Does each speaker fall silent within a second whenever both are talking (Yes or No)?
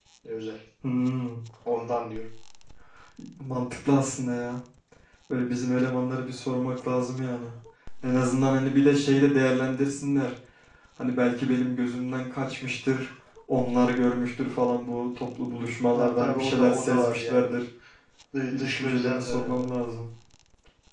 No